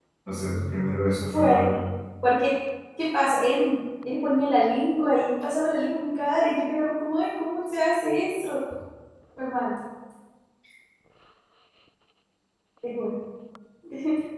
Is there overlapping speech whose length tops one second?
No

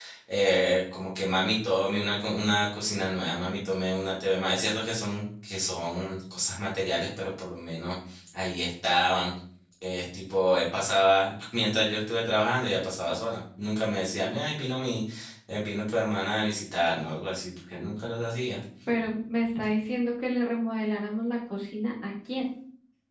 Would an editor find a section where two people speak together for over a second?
No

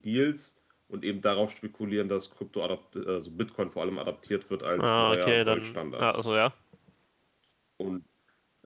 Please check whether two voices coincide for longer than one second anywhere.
Yes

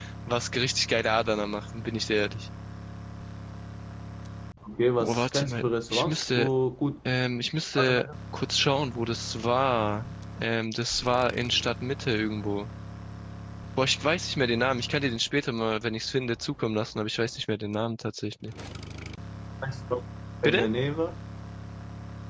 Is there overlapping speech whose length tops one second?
Yes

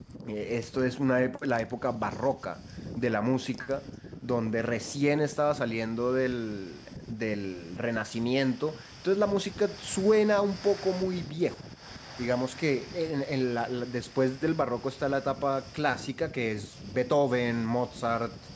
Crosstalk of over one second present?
No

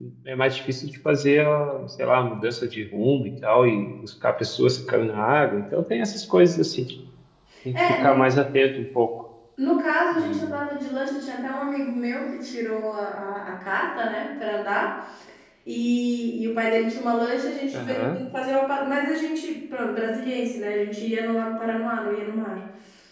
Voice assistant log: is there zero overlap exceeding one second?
Yes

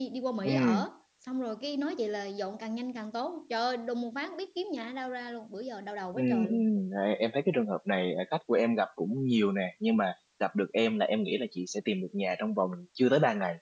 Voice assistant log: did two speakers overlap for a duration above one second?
No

